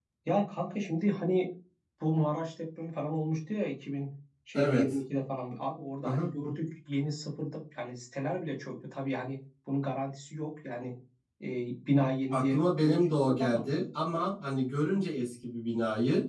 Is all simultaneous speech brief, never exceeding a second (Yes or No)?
No